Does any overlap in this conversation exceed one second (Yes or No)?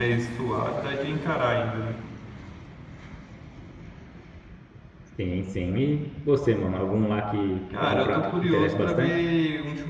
Yes